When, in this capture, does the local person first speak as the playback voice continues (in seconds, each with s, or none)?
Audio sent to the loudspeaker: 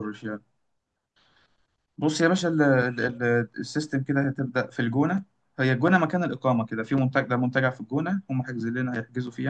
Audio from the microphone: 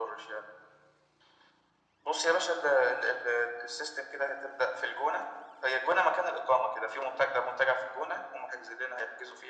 none